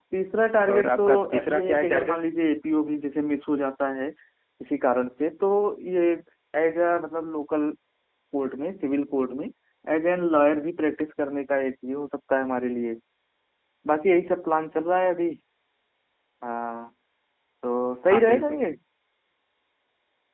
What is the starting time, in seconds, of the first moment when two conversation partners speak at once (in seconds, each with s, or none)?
0.8 s